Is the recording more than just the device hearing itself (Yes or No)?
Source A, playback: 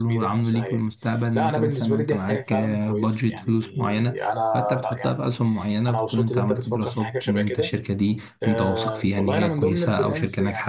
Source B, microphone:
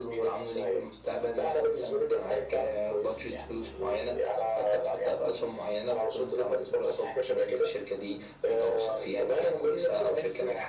No